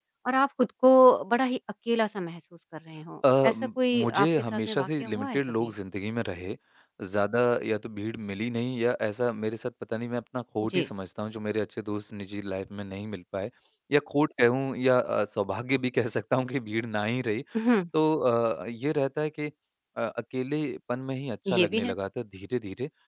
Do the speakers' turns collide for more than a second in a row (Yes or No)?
Yes